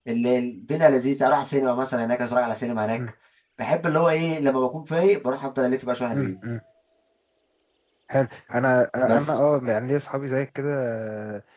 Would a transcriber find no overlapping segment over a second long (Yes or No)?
Yes